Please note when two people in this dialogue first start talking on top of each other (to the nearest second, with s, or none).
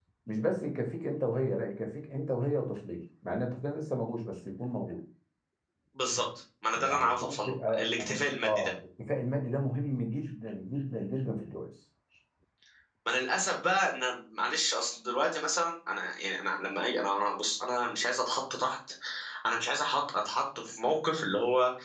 7 s